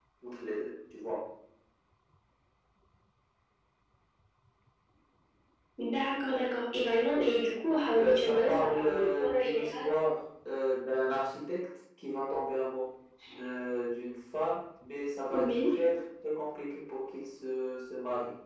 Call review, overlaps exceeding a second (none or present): present